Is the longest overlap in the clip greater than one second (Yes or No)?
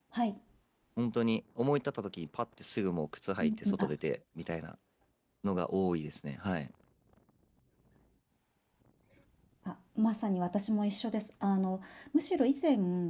No